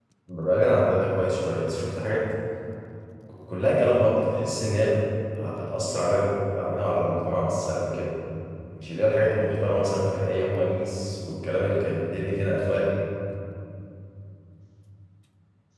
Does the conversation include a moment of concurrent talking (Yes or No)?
No